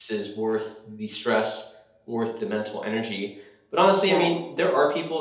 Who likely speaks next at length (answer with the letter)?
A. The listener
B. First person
B